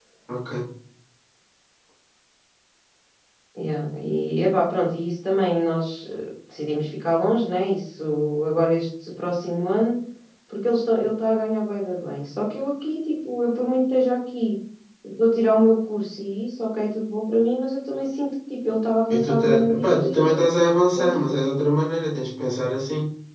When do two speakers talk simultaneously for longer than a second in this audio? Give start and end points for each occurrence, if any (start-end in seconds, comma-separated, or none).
19.1-20.5